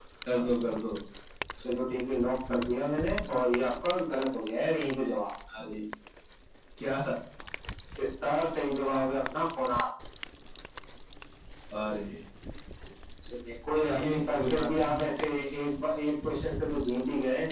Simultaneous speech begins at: 13.7 s

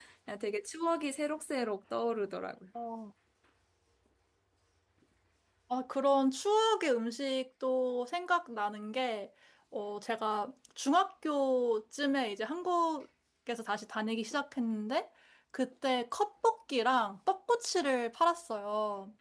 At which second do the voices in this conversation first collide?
none

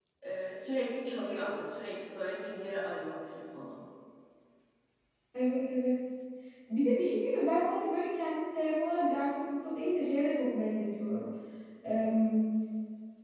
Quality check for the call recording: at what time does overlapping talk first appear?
none

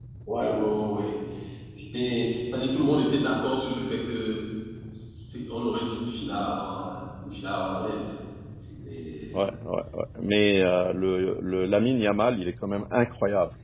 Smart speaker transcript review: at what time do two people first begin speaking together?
none

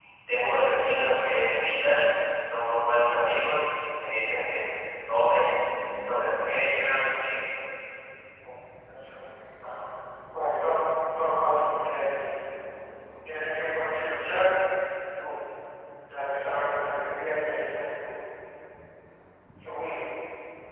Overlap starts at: none

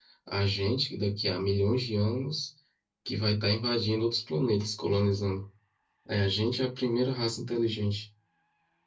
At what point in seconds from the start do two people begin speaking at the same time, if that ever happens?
none

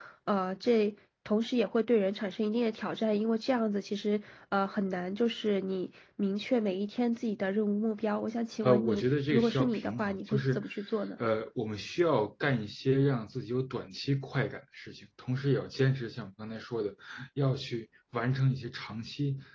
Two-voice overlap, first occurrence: 8.6 s

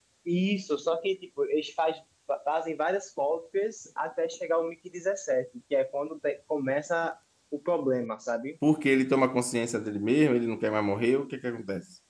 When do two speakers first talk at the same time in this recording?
none

